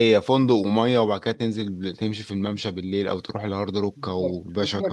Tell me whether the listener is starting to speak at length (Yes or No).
Yes